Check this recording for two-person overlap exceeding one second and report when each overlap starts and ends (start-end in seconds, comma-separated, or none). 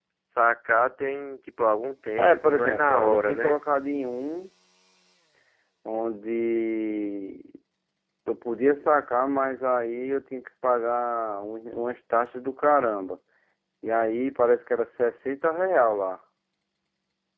2.2-3.6